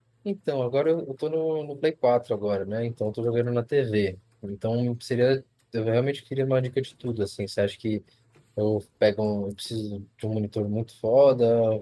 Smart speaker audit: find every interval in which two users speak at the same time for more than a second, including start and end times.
none

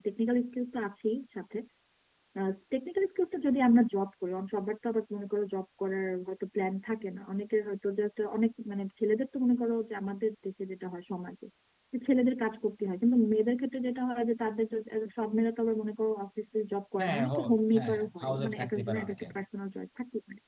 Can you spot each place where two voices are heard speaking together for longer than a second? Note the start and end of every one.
17.8-19.2

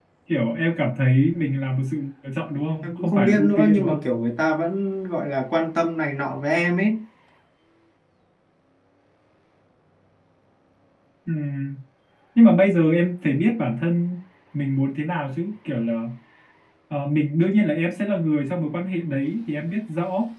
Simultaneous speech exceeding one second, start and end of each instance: 2.8-4.0

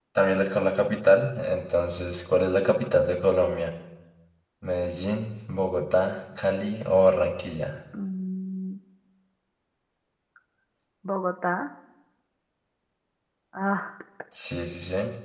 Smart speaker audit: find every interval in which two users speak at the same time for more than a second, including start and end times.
none

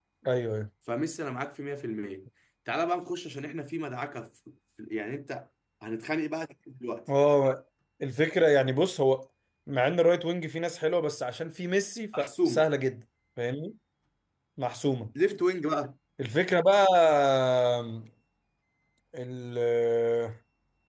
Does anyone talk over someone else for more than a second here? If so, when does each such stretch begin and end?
none

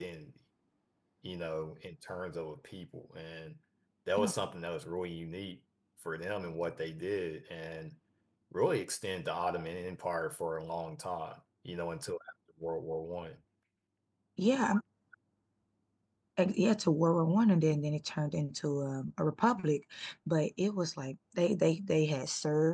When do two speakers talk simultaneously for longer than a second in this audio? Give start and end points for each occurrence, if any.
none

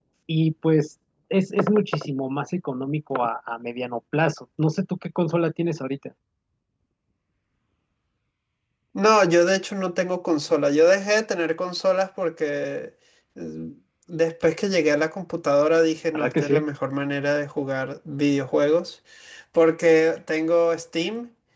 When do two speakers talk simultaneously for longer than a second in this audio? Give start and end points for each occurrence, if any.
none

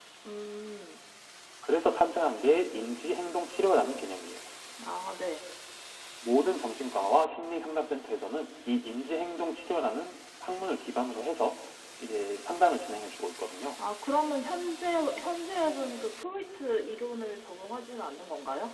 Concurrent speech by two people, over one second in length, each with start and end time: none

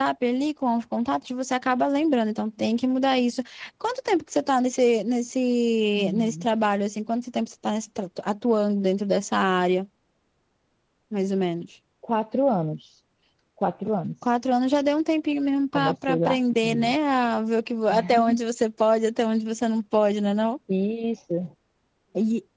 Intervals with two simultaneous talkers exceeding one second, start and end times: 15.7-16.9

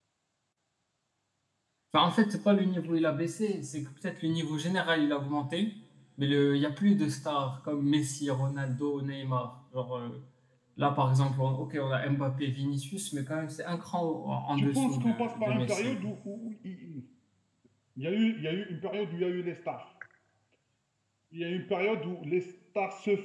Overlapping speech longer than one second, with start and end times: 14.6-16.1

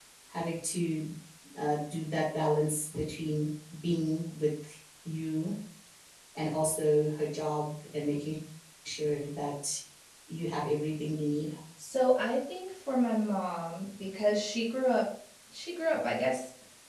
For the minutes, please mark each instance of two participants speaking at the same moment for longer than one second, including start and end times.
none

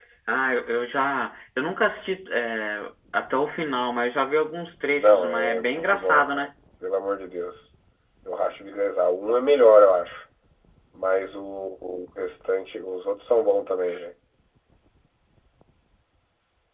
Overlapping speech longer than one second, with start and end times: 5.0-6.5

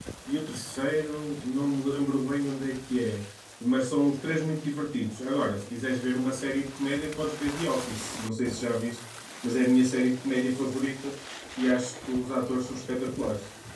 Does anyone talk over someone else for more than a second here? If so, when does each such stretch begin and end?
none

